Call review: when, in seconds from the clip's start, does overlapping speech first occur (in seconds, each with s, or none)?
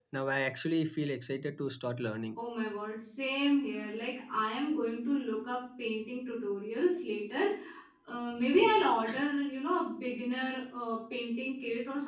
none